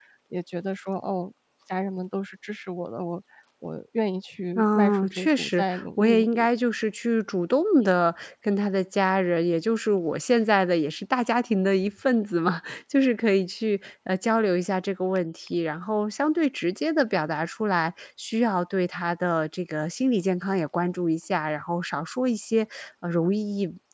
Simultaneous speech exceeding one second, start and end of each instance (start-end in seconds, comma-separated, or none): 4.6-6.5